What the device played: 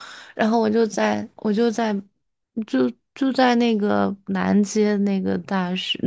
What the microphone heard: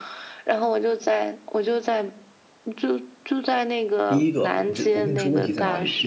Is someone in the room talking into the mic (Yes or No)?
Yes